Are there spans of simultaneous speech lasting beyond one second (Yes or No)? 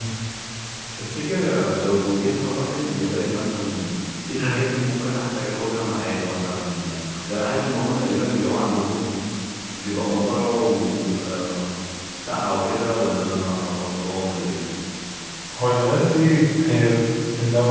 No